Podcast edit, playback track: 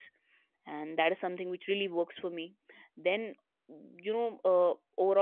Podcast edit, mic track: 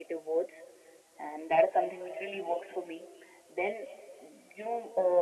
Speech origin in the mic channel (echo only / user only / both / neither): echo only